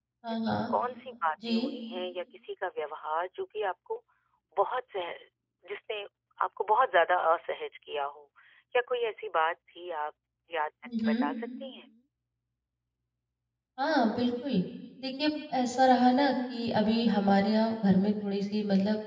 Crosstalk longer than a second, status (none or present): none